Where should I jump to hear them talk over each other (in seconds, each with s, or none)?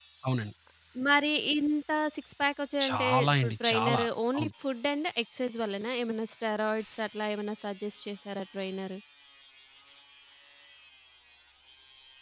2.8 s